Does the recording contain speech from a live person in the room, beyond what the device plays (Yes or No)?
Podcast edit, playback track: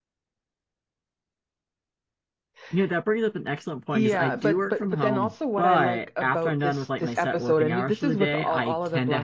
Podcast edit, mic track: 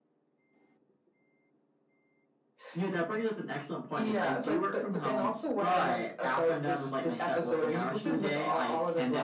No